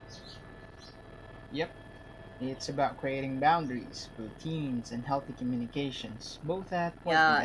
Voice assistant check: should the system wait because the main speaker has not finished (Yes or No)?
No